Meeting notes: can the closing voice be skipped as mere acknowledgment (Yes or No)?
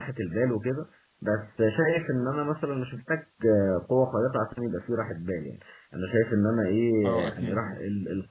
Yes